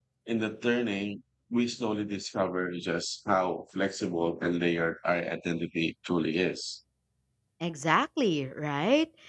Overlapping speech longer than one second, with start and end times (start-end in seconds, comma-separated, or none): none